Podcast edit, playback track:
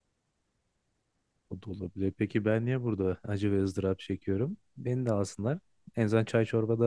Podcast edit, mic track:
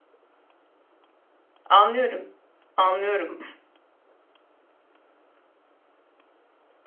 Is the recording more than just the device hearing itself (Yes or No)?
Yes